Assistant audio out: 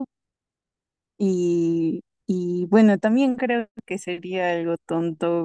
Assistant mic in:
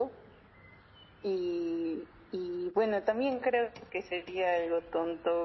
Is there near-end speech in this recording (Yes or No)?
No